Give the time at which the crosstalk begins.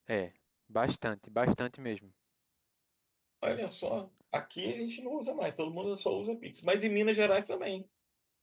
none

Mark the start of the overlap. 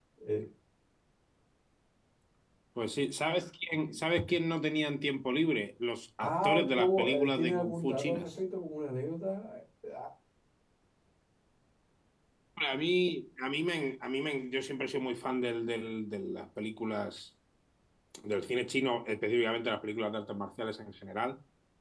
6 s

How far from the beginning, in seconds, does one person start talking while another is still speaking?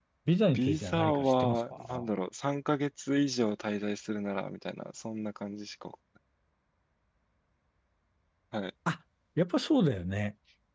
1 s

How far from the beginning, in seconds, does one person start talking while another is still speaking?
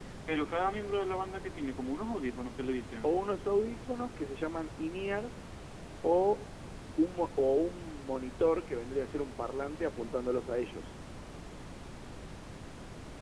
none

